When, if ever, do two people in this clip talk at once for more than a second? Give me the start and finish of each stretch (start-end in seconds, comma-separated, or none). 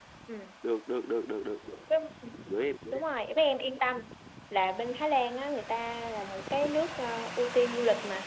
none